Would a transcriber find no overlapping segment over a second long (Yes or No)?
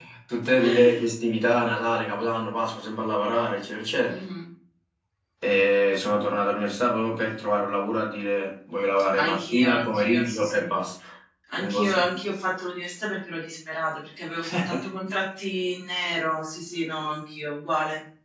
No